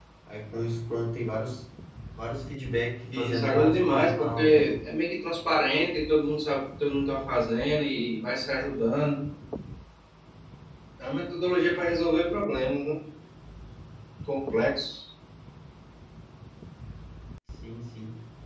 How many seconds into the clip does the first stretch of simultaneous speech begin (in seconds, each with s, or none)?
3.1 s